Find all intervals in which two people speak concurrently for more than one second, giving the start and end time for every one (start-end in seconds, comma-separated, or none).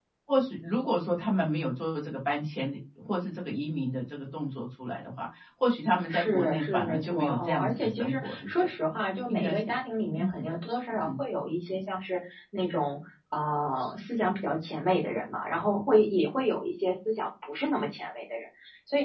6.1-8.7